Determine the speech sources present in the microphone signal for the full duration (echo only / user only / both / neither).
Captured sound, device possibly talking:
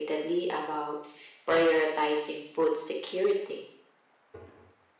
echo only